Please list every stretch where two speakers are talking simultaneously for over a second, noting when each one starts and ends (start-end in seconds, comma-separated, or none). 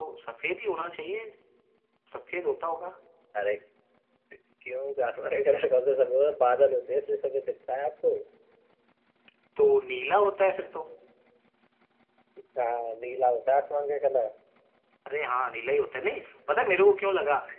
none